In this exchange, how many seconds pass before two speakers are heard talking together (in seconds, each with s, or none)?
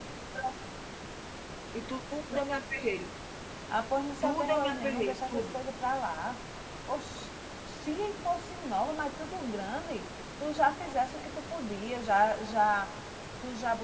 4.2 s